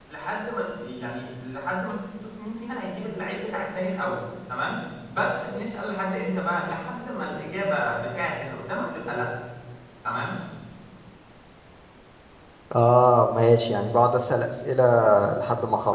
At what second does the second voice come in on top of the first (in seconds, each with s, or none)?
none